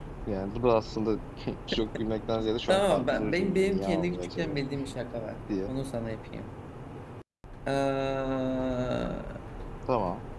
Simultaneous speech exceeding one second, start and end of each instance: 2.7-4.6

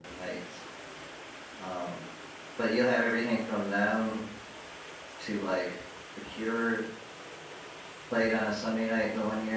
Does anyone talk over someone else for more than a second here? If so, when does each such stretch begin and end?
none

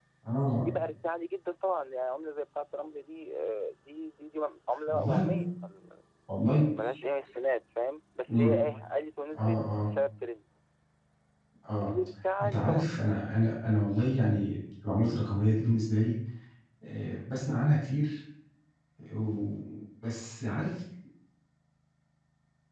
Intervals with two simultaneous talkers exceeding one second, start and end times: none

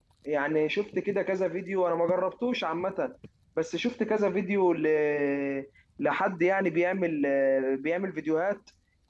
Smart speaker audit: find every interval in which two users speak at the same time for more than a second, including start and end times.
none

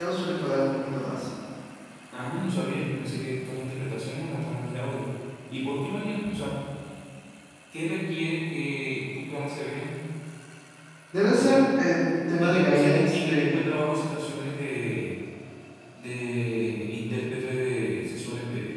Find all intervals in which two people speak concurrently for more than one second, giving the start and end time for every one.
12.4-13.6

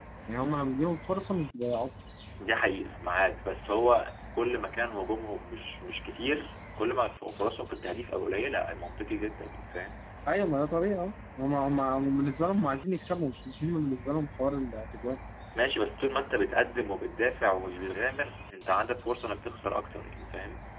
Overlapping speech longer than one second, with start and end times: none

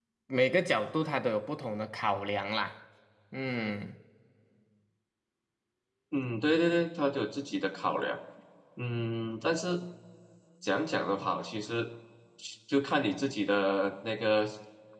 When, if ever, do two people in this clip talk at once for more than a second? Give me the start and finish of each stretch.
none

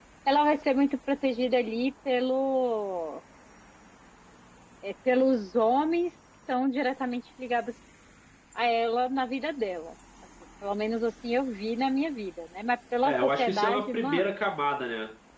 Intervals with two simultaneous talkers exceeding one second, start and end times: 13.0-14.2

